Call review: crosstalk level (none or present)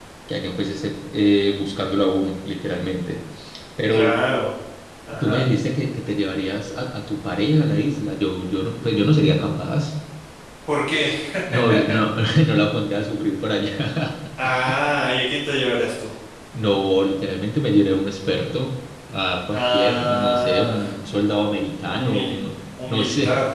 present